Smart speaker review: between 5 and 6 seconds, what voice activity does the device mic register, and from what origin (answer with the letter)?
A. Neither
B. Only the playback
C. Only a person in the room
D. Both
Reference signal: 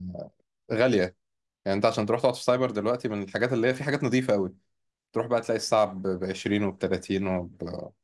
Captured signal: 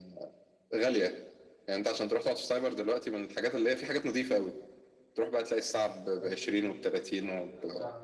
B